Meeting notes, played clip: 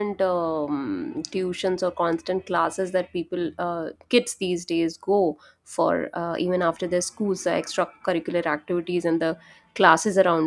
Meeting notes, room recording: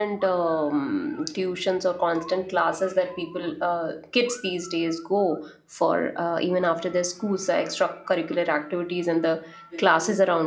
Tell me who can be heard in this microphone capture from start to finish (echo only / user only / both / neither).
both